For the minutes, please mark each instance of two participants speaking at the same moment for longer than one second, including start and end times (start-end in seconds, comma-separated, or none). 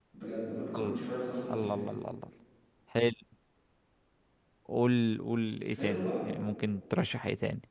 none